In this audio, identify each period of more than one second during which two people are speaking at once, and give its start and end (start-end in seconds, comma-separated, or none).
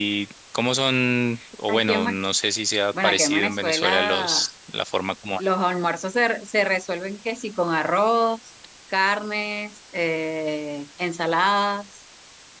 3.0-4.5